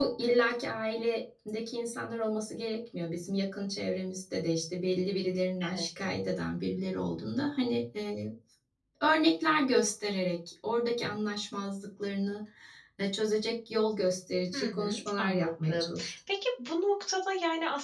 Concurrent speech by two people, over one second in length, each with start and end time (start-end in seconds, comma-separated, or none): 14.5-16.1